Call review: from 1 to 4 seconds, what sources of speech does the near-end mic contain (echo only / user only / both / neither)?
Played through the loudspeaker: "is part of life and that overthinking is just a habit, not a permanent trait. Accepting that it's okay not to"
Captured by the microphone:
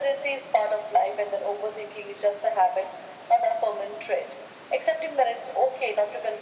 echo only